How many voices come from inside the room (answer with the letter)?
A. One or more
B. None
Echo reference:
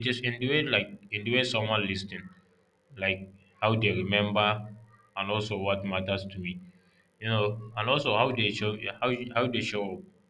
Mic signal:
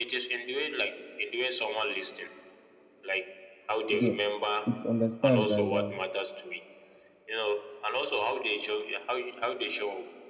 A